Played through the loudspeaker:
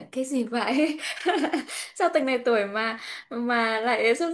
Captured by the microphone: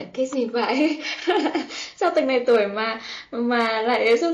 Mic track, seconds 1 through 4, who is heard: echo only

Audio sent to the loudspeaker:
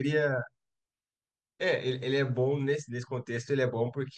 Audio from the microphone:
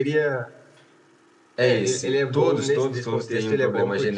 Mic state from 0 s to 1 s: echo only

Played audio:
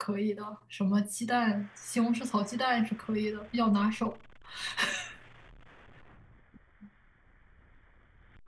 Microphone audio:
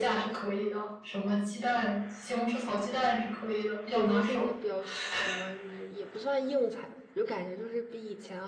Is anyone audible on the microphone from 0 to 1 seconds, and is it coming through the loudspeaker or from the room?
echo only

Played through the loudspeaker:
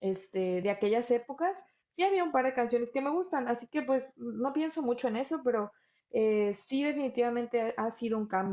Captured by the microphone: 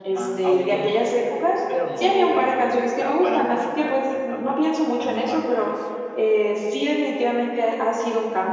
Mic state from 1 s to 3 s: both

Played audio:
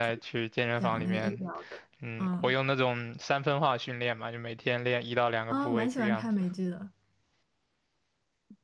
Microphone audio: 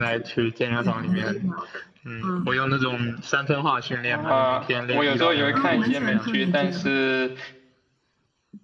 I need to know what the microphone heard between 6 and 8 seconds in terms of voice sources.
both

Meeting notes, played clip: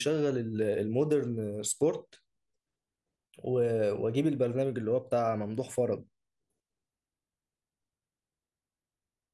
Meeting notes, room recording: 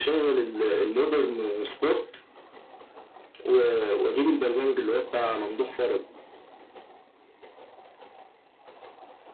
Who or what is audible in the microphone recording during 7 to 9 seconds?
neither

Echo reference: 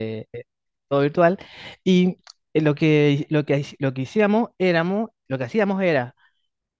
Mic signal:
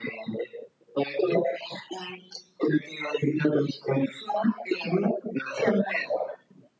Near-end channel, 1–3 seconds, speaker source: echo only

